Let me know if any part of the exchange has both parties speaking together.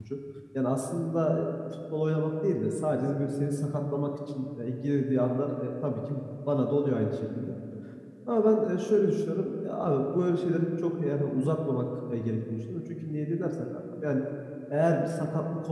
No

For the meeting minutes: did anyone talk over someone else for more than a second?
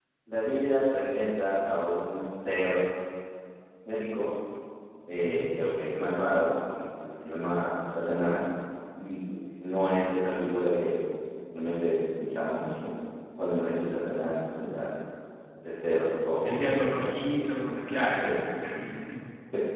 Yes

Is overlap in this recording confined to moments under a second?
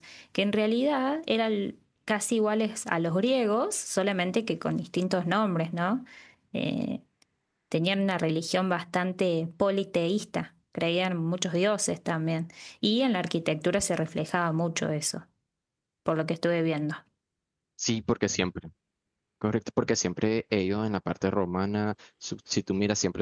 Yes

